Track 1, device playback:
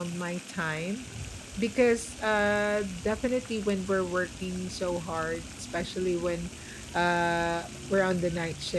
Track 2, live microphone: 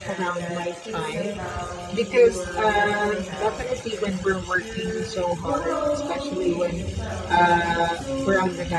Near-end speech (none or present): present